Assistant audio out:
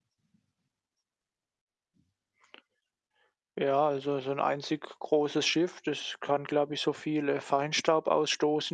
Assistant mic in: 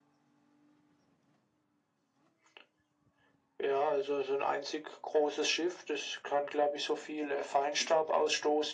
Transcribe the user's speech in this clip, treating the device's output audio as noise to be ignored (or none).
none